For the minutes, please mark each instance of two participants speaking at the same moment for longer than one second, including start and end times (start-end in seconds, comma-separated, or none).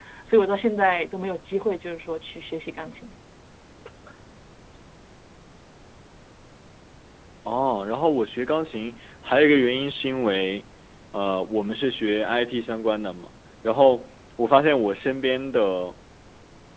none